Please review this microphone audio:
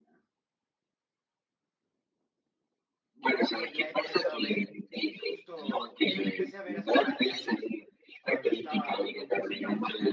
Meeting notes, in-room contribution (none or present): present